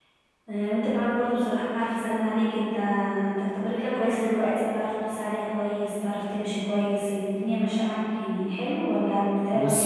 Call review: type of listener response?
taking over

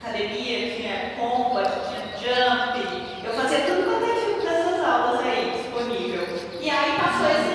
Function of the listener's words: listening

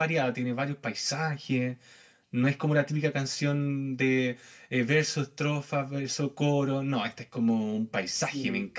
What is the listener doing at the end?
taking over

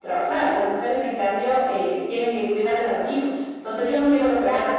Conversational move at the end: taking over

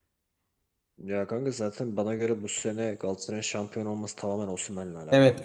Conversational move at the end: taking over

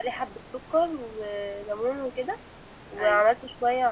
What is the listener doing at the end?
listening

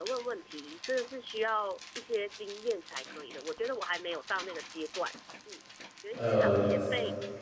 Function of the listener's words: listening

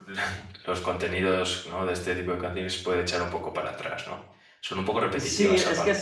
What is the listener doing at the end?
taking over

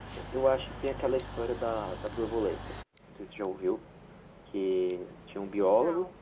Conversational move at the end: listening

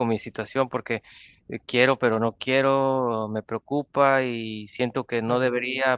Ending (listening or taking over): listening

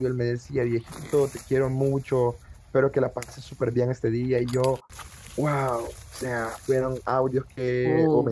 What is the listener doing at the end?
listening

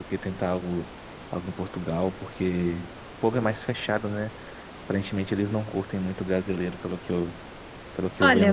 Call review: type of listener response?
taking over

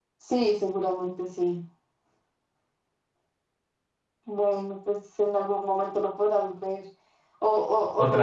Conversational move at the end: listening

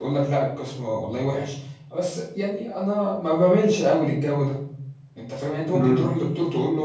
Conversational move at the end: listening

